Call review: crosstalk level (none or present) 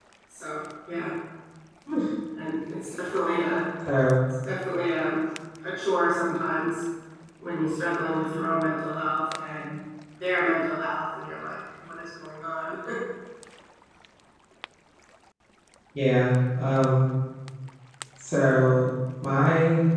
none